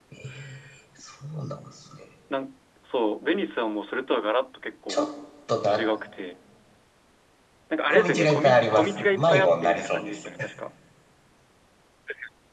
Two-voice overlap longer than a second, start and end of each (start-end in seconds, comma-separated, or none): 7.9-10.2